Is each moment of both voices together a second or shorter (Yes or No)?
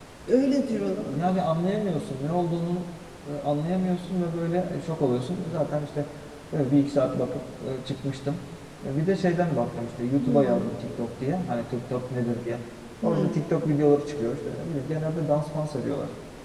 Yes